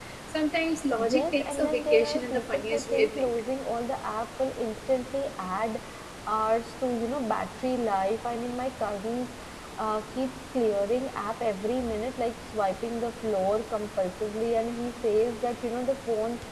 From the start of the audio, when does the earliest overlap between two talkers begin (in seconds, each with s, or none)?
1.0 s